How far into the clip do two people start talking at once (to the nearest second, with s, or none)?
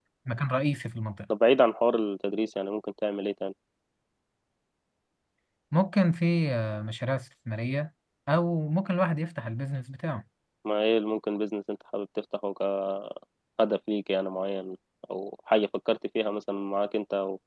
none